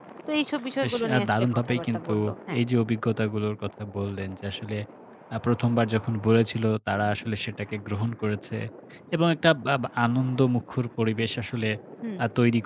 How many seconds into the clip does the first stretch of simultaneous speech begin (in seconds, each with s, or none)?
0.8 s